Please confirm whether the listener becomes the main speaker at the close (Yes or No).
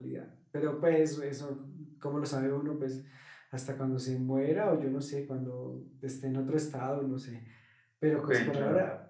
No